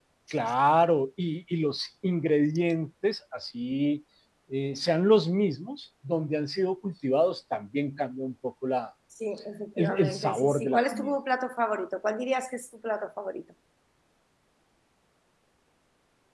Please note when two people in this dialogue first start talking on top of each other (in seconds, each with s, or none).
9.8 s